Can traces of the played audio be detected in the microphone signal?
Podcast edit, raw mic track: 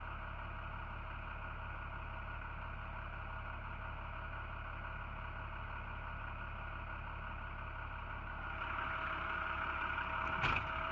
No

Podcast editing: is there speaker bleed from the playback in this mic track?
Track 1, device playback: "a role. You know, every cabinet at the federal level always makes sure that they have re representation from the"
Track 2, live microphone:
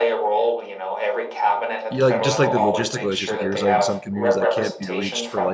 Yes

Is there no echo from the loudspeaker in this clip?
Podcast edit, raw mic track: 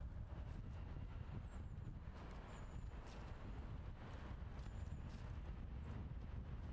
Yes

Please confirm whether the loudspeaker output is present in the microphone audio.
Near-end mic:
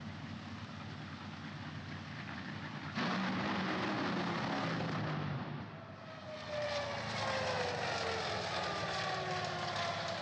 No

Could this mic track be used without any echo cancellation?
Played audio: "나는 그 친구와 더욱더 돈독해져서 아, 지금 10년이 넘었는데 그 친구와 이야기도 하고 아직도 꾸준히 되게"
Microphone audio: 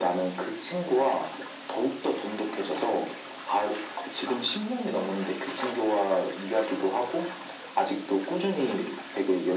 No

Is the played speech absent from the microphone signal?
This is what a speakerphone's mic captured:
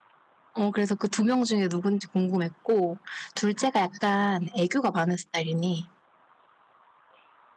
Yes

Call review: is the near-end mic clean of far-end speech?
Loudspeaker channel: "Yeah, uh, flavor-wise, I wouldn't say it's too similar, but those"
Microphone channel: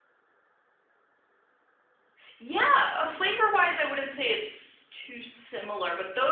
No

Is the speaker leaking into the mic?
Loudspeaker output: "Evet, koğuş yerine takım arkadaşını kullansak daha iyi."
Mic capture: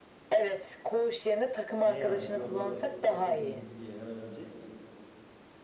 Yes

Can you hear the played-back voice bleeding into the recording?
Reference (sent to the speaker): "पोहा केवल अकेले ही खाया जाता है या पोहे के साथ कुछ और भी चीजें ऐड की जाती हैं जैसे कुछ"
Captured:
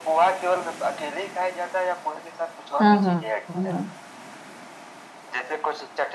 Yes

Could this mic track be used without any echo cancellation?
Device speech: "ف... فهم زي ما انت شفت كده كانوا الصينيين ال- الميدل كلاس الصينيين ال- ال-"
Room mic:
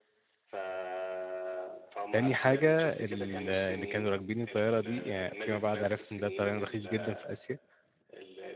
No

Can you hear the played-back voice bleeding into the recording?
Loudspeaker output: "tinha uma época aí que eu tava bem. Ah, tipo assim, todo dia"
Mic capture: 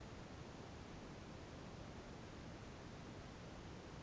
No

